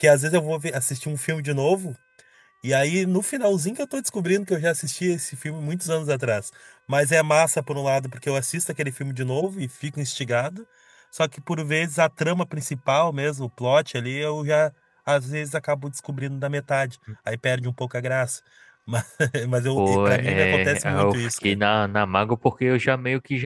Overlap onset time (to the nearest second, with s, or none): 20 s